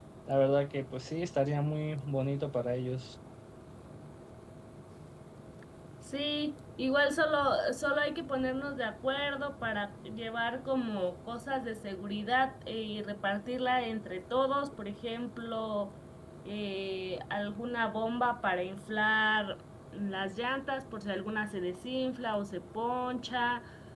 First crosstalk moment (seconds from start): none

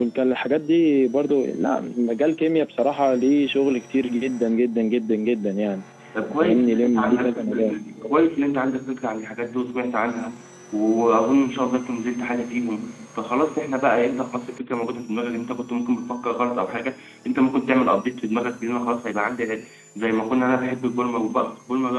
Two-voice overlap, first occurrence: 6.4 s

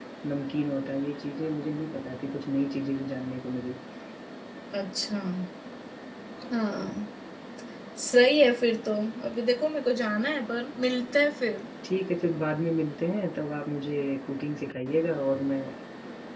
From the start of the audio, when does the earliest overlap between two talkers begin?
none

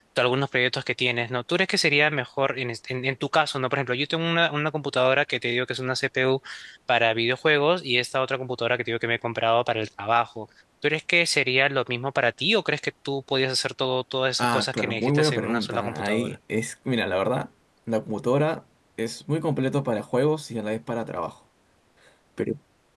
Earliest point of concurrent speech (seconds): 14.4 s

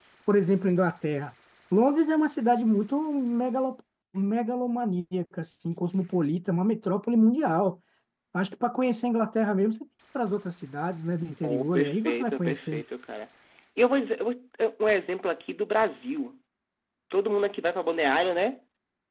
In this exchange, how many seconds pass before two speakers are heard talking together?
11.4 s

